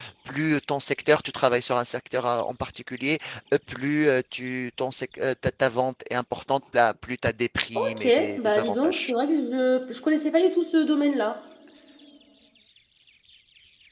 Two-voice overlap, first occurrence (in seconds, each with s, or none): 7.8 s